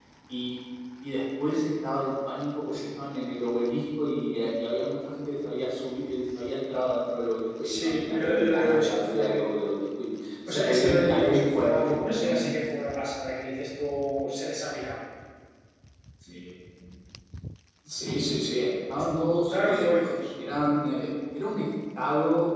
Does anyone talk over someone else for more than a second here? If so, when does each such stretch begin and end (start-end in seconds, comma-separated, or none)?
7.6-9.4, 10.5-12.6